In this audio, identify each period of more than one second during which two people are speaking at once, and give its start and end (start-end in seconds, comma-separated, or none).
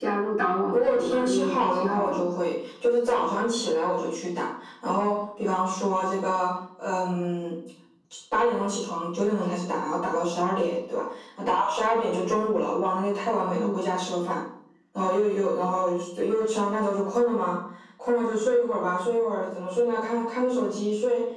0.7-2.2